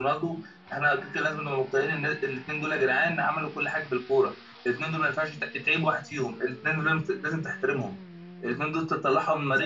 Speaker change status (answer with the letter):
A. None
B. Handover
A